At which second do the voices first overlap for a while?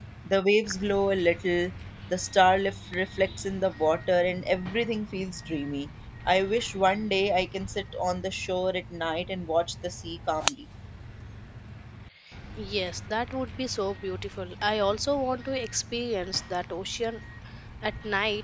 none

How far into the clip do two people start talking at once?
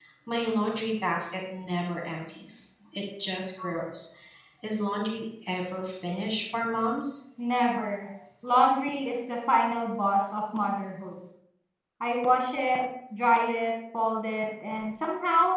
none

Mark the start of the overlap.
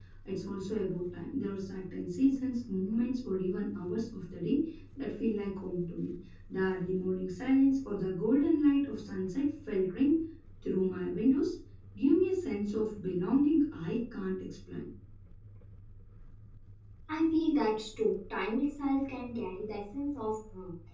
none

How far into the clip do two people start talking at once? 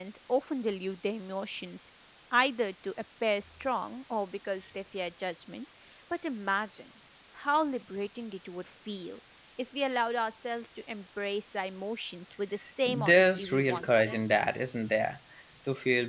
12.6 s

